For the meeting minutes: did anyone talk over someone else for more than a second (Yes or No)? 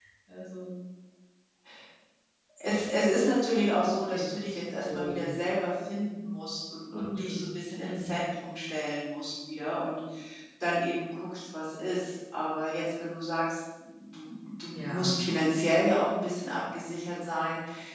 Yes